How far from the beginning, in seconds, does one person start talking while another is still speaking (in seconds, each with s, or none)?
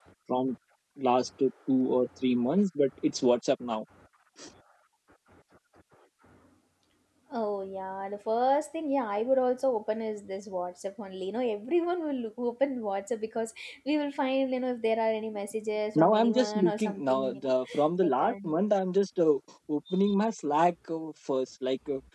16.0 s